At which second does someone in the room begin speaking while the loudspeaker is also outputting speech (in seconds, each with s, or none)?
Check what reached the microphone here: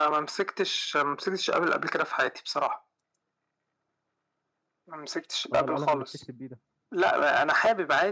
5.5 s